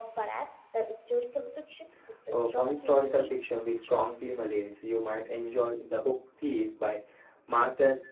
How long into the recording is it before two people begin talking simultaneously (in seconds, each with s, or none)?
2.3 s